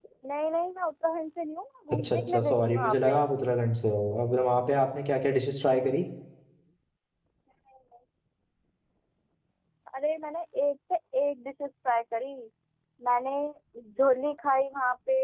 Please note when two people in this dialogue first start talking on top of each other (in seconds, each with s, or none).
1.9 s